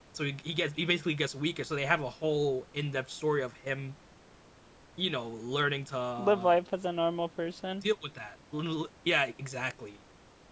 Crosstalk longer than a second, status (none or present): none